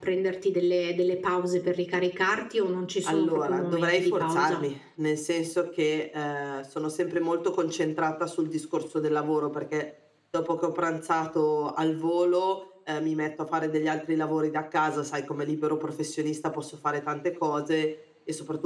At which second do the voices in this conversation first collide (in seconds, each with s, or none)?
3.1 s